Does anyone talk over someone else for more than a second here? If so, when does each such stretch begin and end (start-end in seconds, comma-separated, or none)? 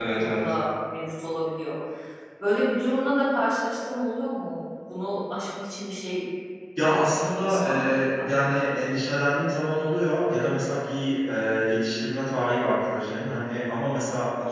6.9-8.6